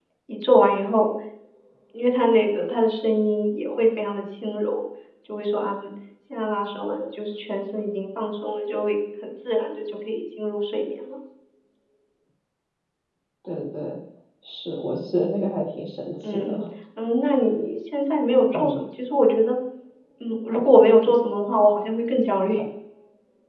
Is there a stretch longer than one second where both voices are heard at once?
No

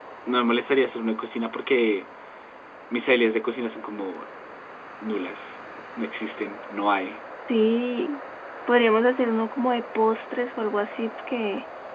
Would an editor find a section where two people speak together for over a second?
No

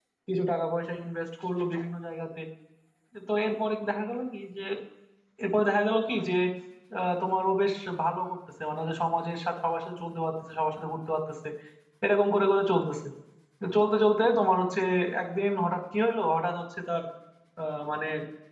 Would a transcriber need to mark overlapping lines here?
No

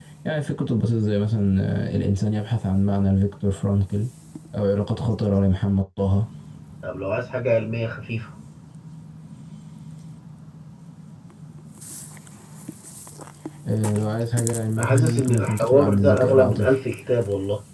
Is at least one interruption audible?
Yes, from 14.8 s

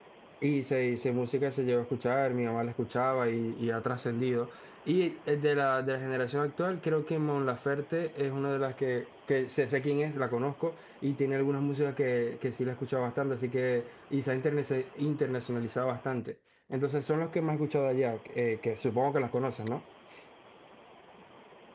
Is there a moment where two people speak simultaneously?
No

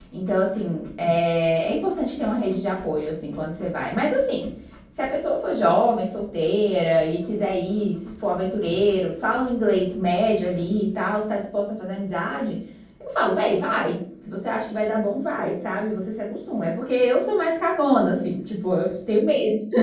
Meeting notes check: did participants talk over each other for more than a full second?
No

